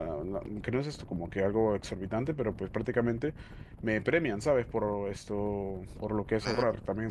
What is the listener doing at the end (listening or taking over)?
listening